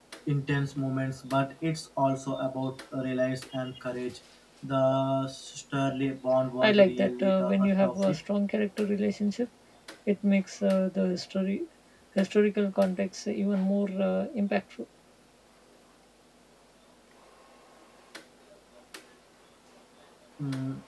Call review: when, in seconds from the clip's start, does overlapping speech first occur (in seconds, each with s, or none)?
6.6 s